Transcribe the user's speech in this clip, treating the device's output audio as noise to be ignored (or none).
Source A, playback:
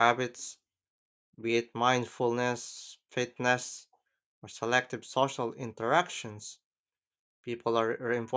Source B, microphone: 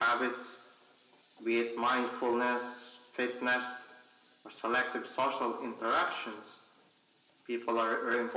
none